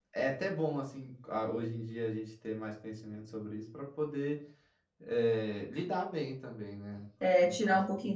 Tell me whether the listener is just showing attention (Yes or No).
No